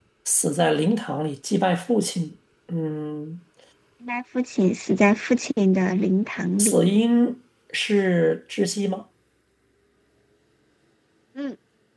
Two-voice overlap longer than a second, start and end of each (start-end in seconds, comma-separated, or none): none